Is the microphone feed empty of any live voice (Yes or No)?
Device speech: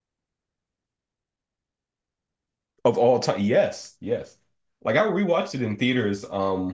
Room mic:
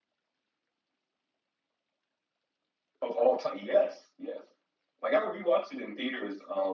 Yes